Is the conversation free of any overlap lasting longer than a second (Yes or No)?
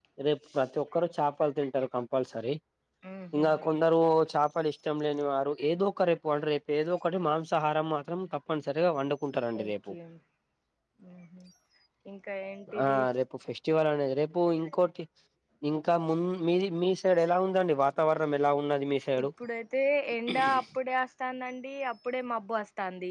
Yes